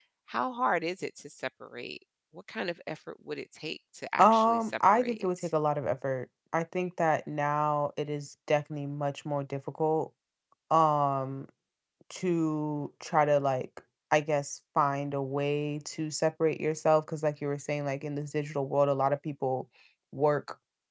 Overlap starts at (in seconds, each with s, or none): 4.2 s